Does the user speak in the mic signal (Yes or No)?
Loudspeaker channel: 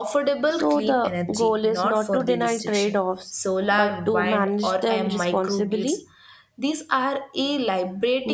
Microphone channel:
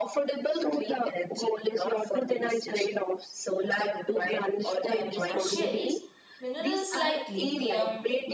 Yes